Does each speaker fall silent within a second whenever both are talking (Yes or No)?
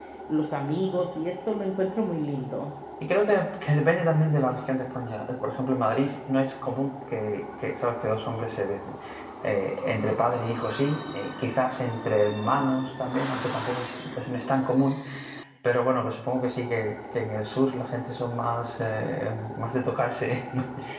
Yes